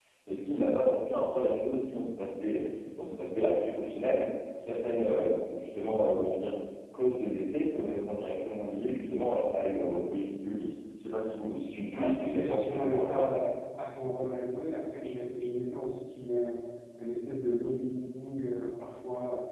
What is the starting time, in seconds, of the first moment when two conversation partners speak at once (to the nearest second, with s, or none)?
12 s